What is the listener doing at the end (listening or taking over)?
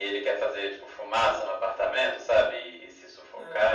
listening